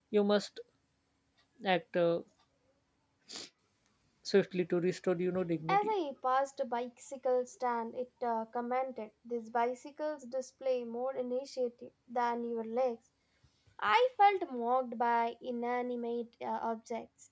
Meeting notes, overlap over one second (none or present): none